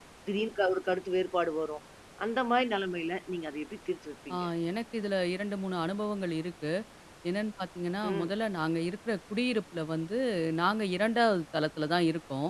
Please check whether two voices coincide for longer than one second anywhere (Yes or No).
No